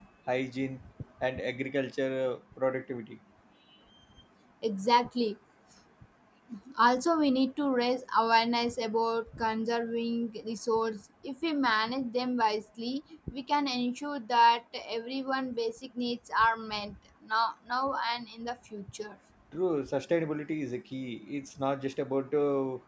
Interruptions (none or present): none